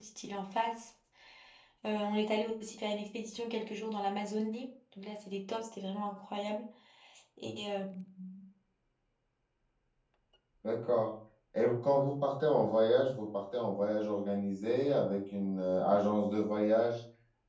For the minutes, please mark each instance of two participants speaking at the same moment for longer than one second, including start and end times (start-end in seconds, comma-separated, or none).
none